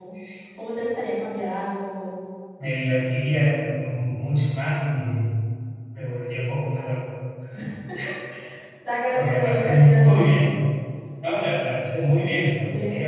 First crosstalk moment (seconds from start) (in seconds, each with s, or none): 9.2 s